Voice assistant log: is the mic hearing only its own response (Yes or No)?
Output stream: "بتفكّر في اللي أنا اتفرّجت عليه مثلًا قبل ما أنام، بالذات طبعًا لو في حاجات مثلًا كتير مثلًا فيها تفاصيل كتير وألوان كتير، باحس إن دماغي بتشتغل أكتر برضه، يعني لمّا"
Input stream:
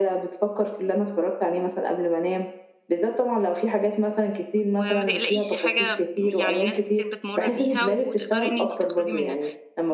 No